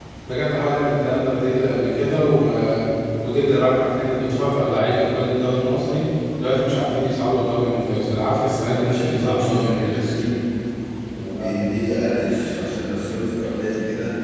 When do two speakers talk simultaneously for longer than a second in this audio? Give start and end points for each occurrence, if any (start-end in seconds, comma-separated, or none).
8.8-10.1